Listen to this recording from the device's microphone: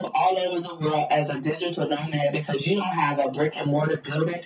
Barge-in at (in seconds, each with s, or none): none